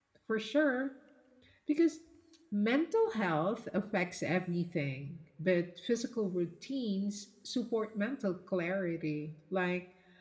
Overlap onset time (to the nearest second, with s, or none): none